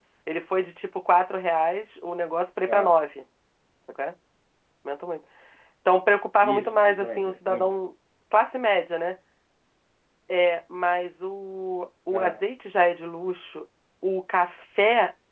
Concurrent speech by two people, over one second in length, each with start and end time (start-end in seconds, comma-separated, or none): 6.4-7.8